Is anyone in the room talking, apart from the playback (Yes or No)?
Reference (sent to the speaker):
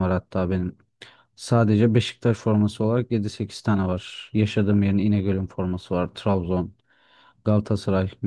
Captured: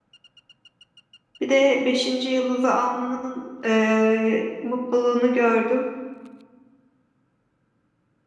Yes